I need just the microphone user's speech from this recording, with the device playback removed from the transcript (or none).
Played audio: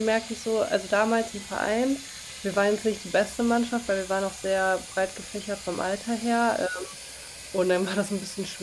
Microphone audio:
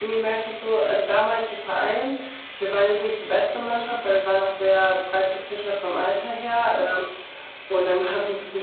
none